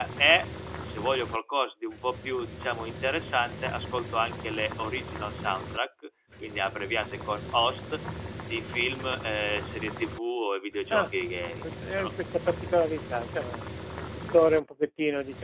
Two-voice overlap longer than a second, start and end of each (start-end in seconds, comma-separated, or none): none